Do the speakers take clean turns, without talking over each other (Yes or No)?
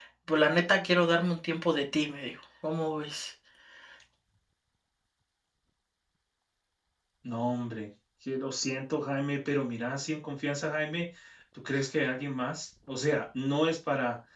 Yes